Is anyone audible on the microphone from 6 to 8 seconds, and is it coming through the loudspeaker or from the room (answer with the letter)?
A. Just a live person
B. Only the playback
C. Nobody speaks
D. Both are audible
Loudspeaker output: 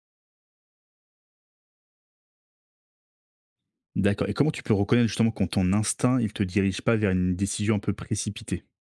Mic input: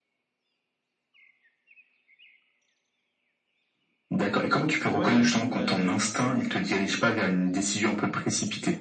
D